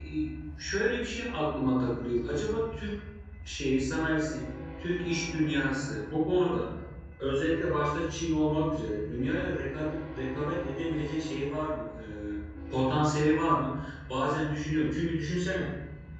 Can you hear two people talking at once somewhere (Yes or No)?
No